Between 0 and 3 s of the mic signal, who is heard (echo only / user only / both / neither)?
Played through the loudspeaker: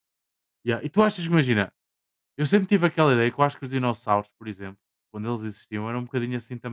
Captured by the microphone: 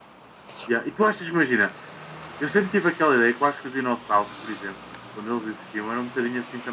echo only